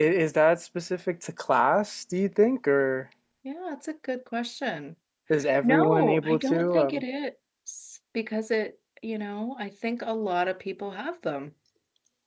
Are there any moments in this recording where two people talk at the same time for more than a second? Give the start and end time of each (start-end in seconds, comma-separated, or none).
5.6-7.0